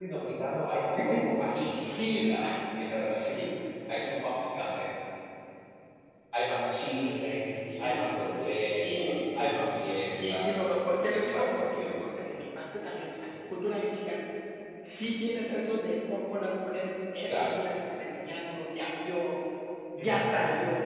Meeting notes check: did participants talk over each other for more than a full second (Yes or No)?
Yes